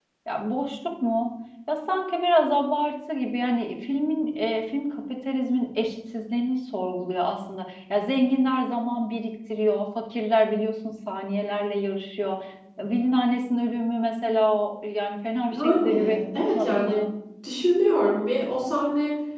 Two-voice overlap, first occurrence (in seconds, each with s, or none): 15.5 s